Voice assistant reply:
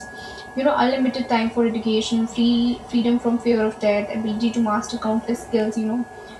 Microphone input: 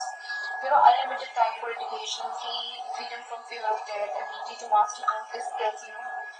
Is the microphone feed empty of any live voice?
Yes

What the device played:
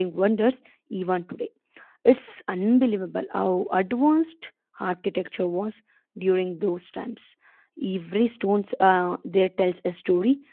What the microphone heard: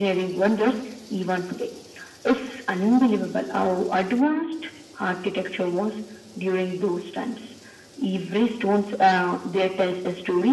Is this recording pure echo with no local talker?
Yes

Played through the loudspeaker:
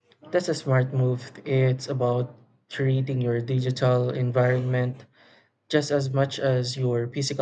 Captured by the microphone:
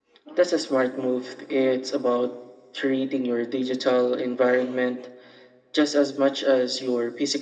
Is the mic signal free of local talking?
Yes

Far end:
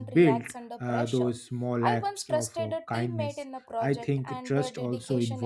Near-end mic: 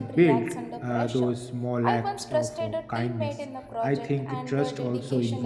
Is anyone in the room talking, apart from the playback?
No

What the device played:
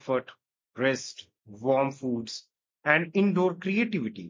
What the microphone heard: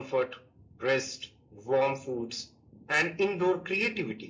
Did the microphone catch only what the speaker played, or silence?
Yes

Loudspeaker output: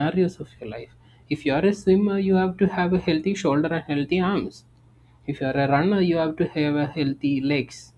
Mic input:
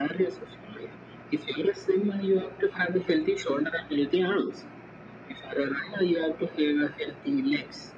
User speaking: No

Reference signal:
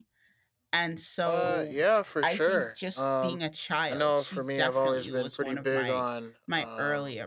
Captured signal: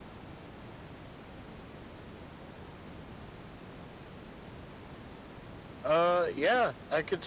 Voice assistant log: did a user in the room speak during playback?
Yes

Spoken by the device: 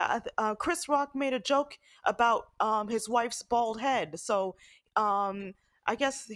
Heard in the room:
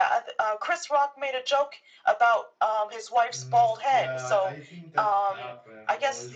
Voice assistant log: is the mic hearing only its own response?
No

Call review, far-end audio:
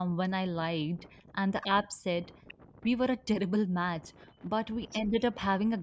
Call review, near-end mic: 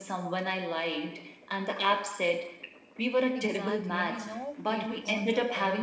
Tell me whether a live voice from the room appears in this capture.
Yes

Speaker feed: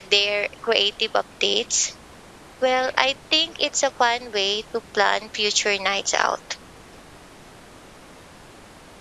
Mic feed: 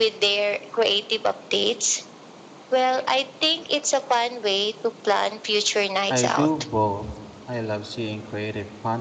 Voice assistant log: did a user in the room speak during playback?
Yes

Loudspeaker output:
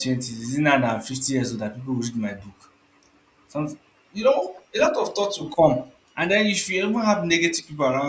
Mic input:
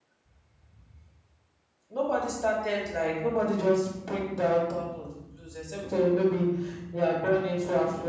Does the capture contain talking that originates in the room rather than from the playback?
Yes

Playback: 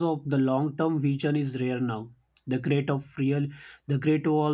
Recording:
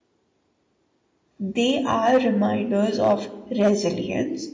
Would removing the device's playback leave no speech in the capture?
No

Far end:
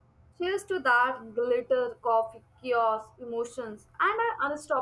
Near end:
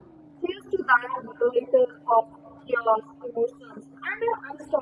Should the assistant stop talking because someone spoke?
No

